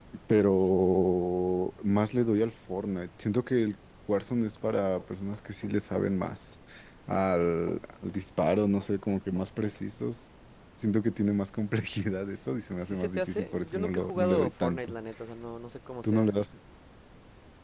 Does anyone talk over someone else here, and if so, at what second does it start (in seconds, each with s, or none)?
12.8 s